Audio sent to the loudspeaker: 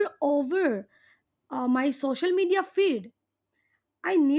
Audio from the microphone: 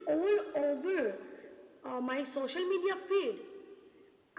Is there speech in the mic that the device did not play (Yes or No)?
No